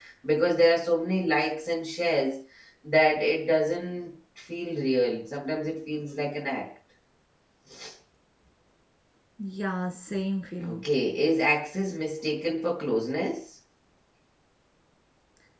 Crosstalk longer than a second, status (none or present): none